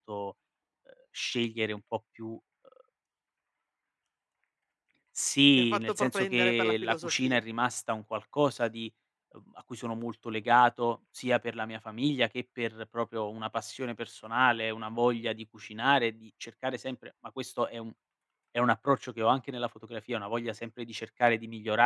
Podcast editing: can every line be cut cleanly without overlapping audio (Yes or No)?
No